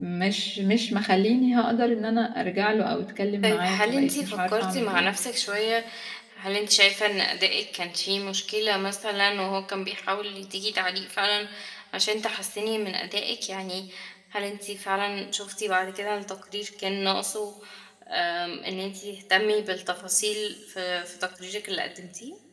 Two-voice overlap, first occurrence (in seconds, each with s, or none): 3.4 s